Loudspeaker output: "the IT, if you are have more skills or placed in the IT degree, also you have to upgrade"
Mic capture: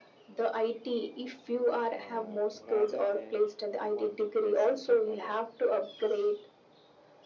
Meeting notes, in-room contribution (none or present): present